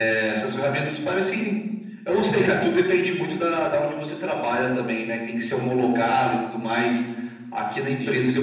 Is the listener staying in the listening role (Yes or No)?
Yes